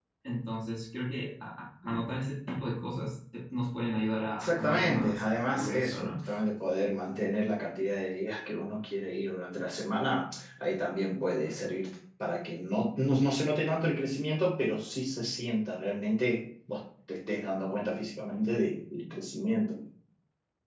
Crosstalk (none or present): present